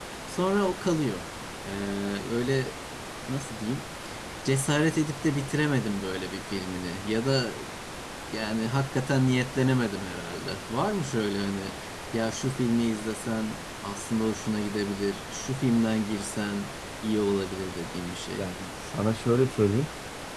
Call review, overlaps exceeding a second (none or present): none